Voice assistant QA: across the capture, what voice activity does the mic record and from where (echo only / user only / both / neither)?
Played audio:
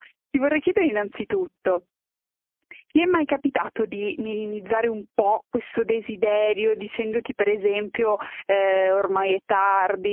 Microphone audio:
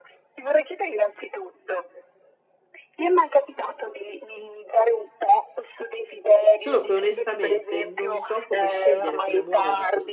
both